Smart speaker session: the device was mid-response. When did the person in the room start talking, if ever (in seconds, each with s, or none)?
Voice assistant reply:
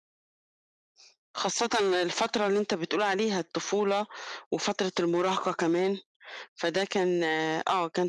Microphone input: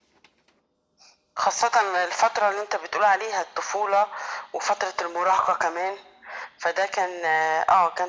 none